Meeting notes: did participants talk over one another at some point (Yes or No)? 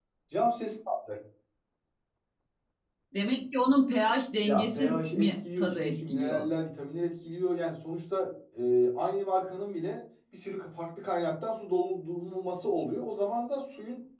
Yes